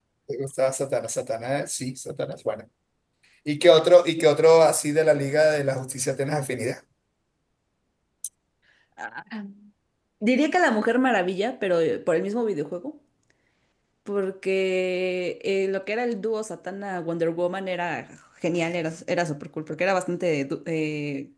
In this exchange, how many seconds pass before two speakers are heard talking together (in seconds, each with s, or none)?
none